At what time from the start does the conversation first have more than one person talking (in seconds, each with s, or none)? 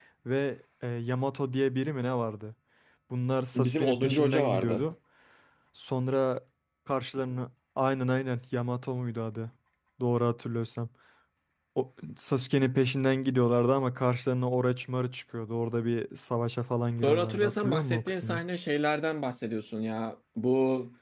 3.5 s